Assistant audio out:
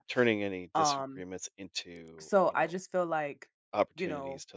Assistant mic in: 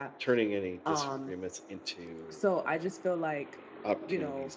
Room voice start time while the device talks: none

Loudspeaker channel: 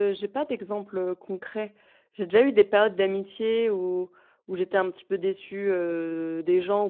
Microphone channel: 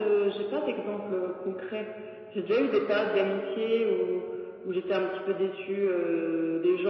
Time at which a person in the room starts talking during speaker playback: none

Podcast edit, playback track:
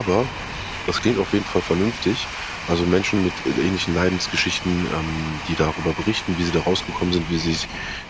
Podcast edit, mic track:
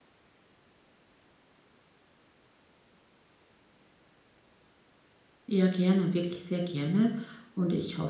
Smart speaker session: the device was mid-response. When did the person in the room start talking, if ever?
5.5 s

